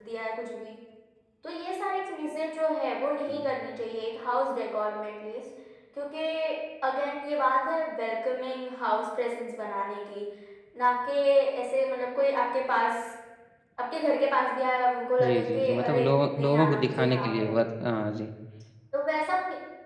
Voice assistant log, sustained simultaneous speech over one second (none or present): present